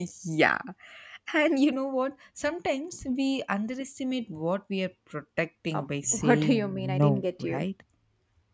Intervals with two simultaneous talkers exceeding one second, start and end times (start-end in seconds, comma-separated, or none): 5.7-7.6